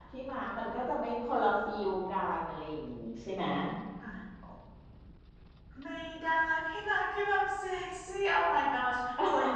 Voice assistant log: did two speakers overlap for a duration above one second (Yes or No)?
No